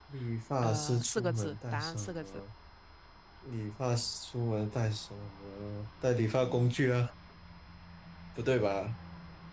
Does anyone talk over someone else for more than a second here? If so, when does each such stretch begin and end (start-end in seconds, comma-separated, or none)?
0.6-2.2